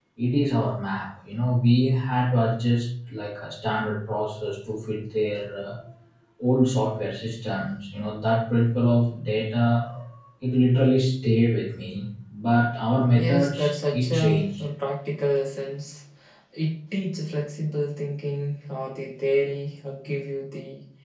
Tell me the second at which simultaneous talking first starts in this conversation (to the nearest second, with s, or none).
13 s